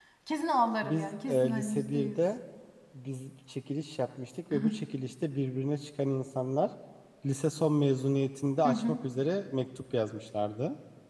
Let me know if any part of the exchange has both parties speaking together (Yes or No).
Yes